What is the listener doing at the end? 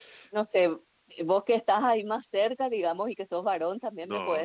listening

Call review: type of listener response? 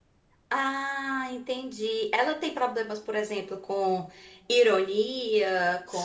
taking over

